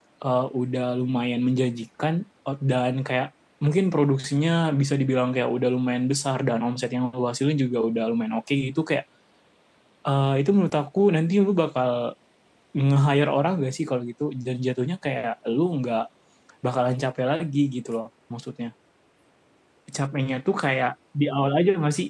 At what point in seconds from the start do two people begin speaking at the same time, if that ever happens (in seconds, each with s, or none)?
none